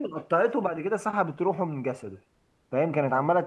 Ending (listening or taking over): listening